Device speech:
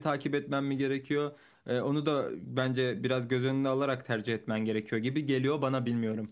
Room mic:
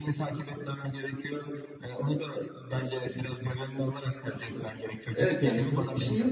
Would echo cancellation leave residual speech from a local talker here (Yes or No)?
Yes